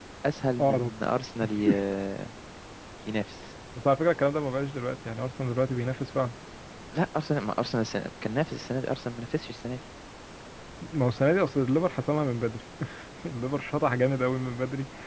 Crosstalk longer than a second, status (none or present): none